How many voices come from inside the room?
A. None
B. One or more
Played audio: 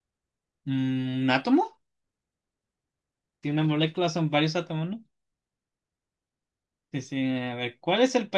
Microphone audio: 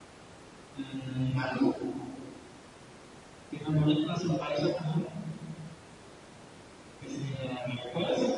A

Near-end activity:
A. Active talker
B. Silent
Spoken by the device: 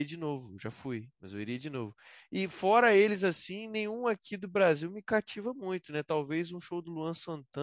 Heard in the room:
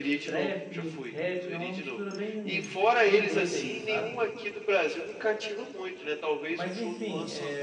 A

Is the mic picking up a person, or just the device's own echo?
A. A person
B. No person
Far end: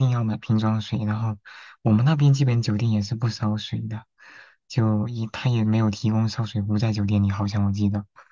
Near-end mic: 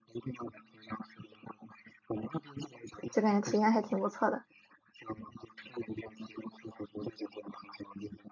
A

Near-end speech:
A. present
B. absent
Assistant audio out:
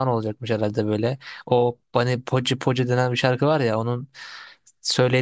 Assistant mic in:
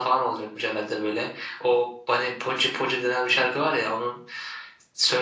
B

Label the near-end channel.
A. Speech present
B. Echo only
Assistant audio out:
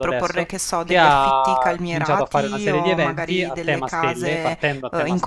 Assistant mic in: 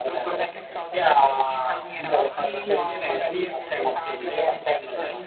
B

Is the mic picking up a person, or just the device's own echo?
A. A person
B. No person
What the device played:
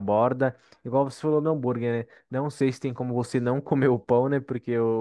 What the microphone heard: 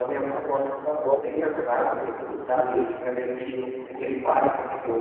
A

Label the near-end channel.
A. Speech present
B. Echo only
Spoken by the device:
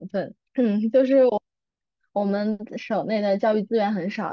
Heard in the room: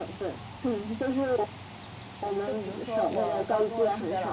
A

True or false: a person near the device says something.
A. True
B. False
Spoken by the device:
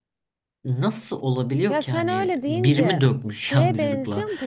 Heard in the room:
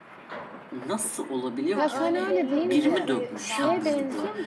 A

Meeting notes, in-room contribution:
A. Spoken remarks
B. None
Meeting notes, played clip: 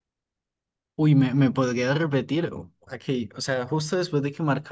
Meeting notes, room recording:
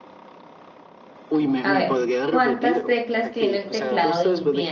A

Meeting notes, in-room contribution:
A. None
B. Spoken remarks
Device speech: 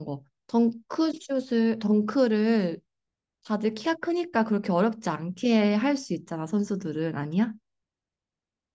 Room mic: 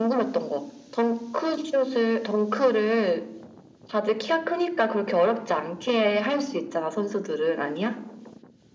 A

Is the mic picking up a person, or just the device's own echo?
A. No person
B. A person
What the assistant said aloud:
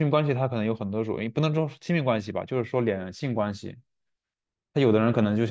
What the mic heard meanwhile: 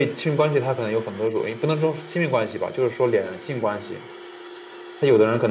A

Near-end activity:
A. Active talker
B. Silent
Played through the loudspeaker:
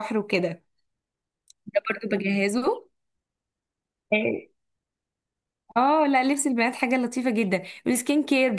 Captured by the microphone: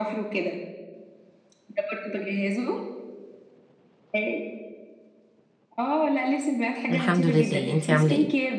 A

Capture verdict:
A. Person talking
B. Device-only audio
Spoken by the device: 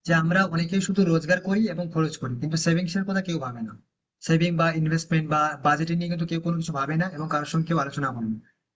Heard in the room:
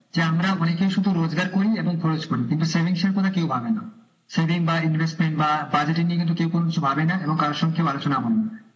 B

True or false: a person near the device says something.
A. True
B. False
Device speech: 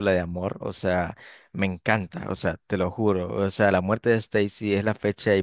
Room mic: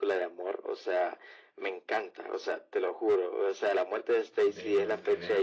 A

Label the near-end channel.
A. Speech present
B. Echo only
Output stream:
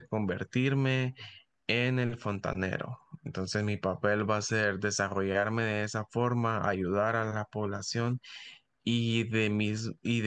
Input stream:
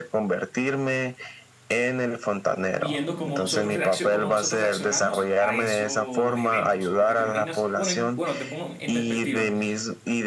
A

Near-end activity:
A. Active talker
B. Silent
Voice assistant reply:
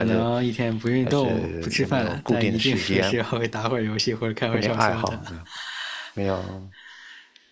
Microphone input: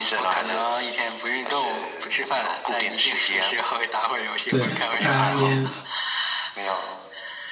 A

